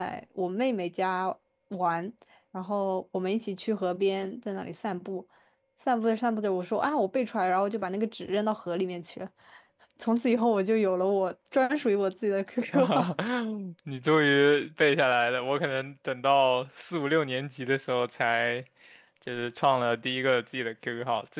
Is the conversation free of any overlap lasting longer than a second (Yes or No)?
Yes